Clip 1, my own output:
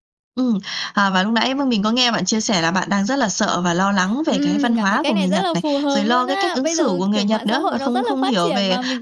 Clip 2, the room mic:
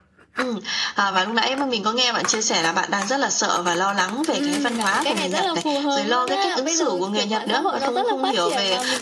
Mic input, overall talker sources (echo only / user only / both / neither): echo only